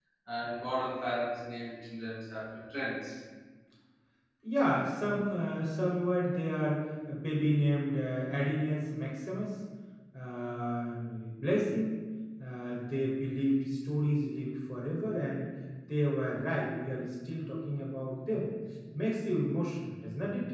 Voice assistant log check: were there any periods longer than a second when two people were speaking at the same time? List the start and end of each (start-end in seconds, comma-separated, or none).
none